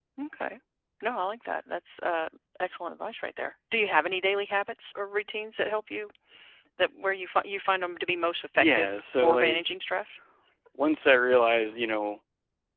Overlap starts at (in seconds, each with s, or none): 8.6 s